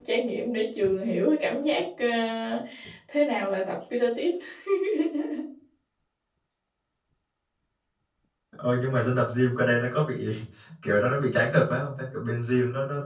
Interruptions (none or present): none